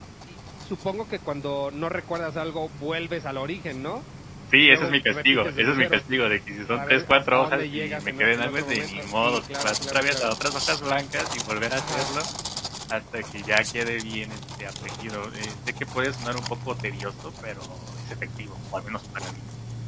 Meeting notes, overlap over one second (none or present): present